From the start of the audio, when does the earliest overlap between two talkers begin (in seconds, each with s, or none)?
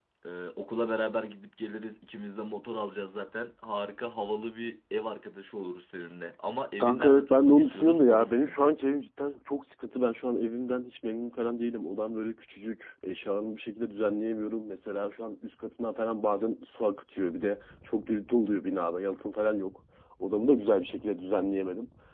6.8 s